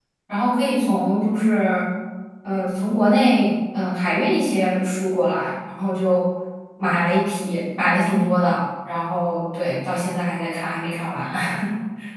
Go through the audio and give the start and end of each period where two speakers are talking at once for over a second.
none

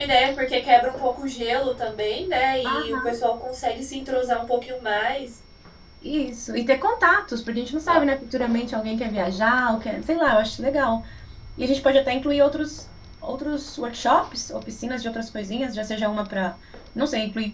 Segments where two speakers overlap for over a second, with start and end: none

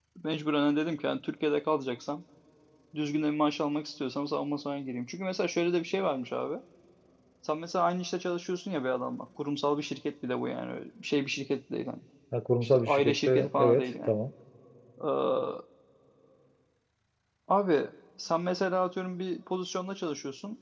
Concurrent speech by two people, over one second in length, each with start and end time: 12.6-14.1

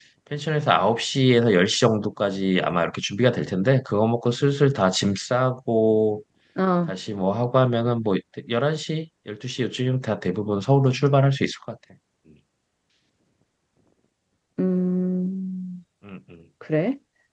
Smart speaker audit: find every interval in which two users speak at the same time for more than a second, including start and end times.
none

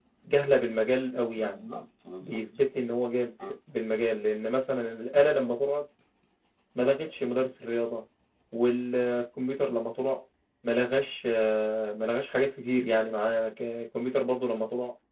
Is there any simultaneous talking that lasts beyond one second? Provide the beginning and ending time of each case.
none

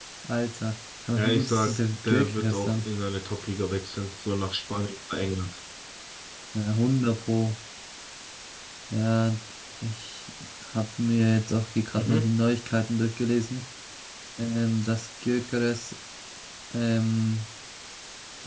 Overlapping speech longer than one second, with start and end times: 1.2-2.8

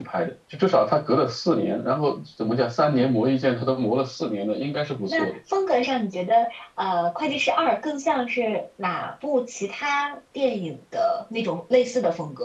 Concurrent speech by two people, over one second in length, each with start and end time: none

